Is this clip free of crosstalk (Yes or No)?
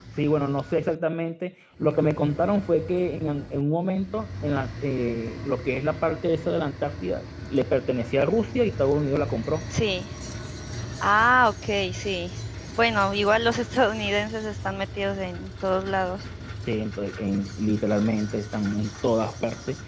Yes